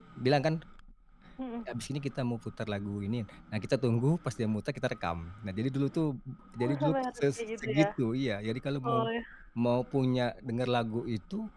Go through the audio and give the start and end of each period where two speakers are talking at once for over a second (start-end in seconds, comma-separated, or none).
6.6-7.9